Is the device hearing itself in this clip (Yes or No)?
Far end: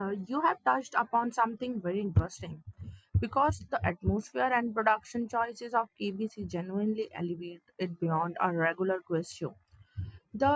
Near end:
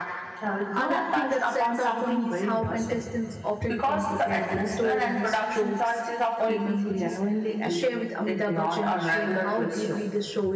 Yes